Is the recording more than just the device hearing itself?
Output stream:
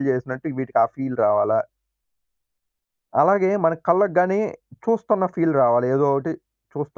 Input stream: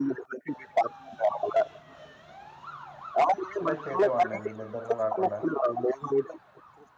Yes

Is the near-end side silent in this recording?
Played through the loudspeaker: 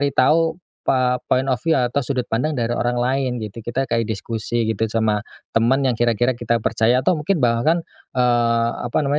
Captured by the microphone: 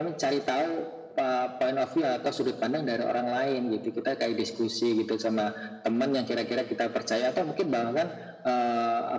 Yes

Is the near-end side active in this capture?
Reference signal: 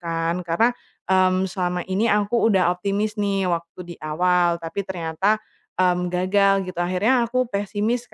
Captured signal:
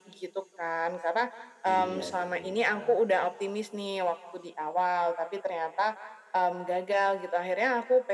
Yes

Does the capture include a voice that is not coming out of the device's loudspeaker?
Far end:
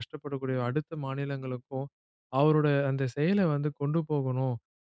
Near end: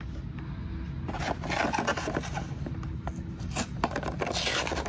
No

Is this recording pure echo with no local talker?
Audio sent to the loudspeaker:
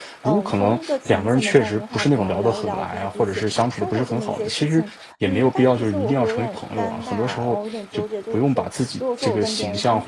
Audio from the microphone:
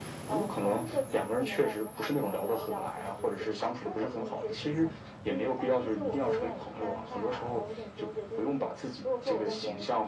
Yes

